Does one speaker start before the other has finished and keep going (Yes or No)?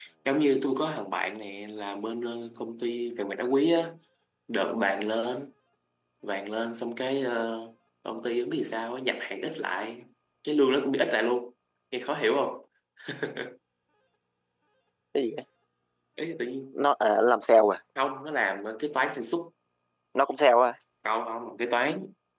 No